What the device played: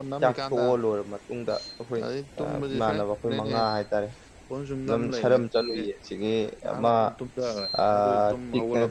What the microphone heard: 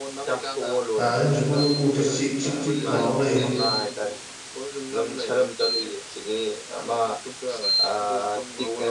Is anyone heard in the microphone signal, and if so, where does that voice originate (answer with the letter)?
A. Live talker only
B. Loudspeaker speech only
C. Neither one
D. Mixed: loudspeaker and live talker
D